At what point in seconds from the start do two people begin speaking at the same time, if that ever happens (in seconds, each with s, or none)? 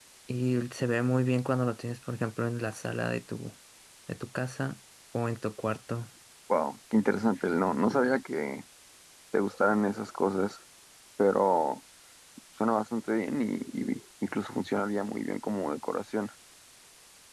none